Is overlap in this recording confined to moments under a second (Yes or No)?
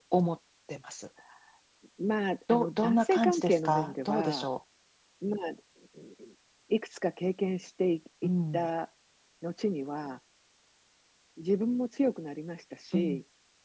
No